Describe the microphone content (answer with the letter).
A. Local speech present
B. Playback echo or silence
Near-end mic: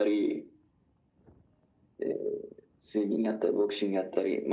B